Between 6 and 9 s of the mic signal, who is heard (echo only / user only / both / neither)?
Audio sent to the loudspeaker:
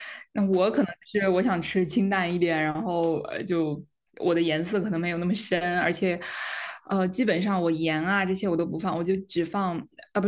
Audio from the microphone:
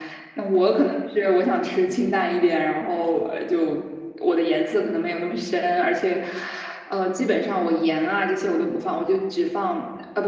echo only